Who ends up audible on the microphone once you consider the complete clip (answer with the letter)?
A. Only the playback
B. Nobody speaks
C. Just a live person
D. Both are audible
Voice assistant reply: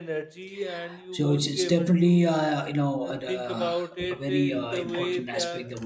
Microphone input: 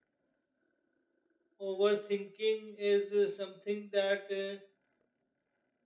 C